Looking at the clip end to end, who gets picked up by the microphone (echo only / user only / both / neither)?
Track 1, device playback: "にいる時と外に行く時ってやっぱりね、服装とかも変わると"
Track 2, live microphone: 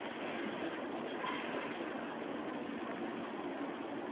neither